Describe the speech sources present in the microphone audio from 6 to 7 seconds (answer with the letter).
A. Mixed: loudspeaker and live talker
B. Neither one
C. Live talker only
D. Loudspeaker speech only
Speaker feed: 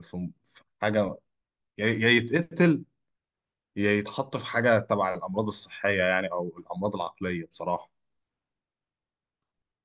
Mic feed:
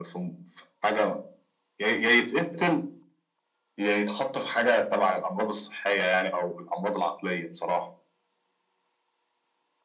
D